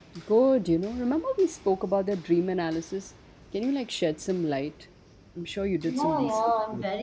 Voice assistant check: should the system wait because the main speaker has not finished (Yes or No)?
No